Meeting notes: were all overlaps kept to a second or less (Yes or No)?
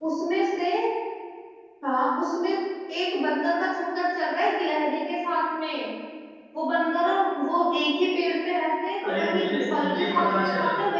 No